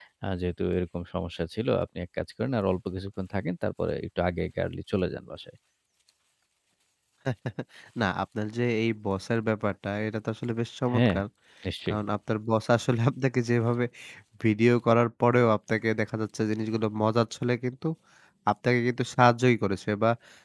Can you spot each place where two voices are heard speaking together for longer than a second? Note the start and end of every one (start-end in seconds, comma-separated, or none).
none